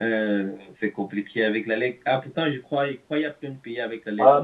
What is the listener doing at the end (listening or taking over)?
taking over